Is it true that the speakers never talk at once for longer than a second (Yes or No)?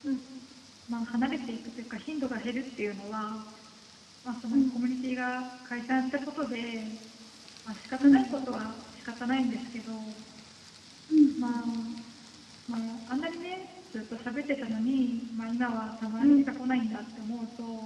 Yes